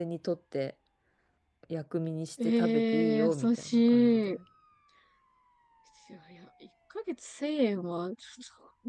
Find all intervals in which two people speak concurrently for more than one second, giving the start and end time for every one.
2.4-4.3

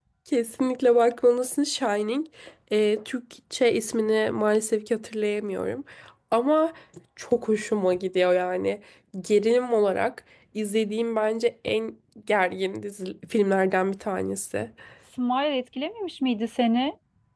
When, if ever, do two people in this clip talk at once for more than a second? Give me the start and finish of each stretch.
none

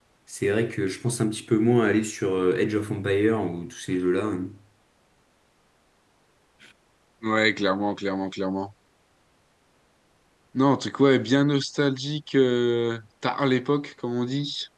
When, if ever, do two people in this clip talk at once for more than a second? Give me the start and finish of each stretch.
none

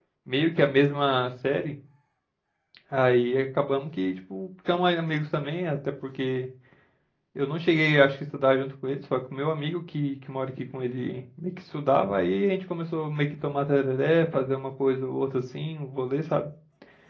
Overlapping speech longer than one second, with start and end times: none

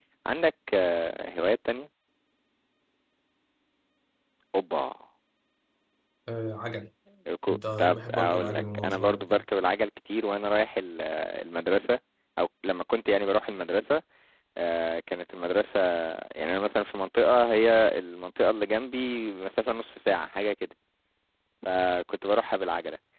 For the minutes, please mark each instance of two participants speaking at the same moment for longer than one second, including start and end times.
7.5-9.4

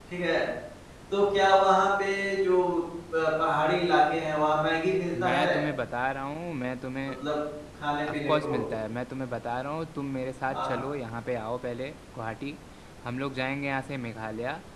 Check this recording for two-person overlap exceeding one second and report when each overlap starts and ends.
none

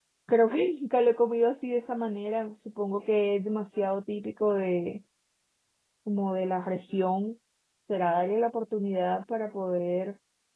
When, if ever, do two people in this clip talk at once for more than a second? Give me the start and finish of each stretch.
none

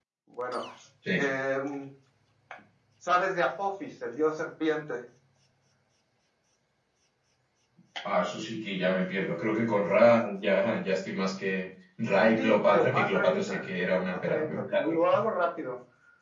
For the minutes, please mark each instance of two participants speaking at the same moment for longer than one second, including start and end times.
12.4-14.9

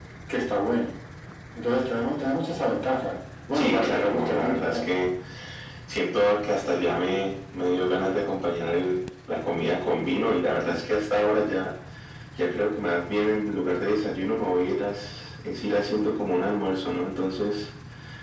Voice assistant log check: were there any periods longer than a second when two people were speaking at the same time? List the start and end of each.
3.5-4.9

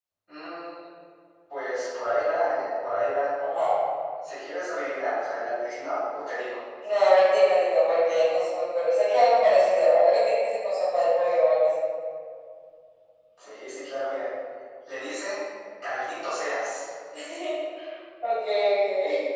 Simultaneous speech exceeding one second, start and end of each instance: none

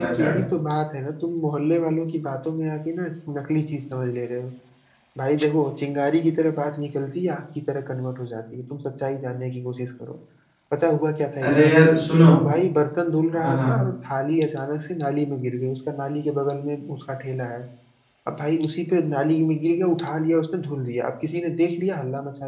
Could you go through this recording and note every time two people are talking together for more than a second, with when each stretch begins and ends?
none

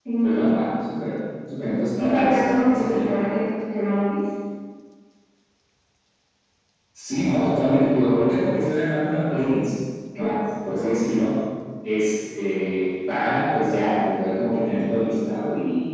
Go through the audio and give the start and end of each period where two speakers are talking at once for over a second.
2.0-3.3

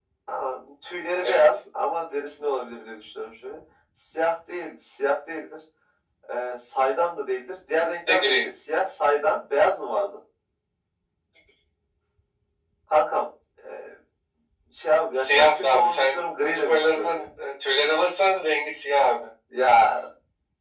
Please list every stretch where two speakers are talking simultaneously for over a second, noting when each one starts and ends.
15.1-17.3

